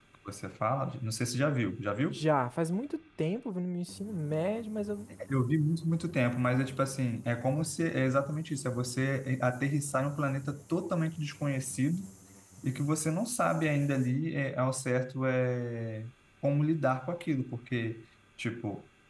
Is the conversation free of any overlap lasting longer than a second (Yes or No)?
Yes